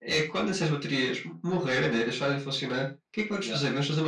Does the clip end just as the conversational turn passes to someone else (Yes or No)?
No